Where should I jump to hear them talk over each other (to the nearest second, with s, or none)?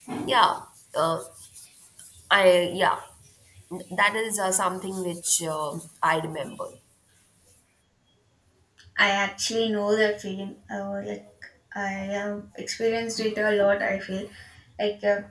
none